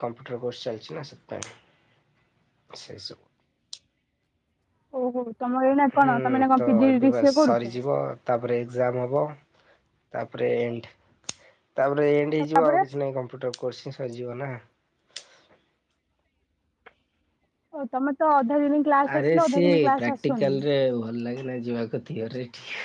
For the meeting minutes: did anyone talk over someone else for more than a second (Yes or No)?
Yes